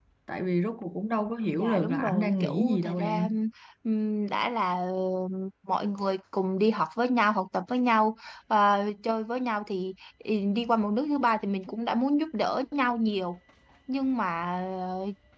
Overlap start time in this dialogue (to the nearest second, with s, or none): 2 s